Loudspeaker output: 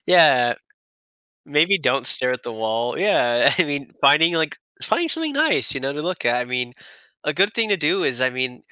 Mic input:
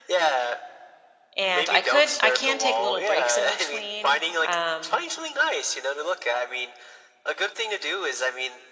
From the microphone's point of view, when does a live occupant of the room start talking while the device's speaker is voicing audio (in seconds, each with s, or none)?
1.4 s